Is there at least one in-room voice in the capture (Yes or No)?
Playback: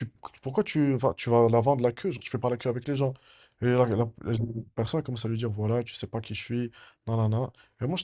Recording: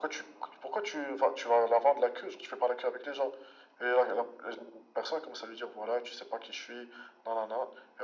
No